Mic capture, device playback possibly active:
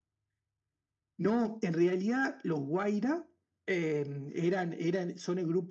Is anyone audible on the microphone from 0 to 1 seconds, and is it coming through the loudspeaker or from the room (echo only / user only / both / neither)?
neither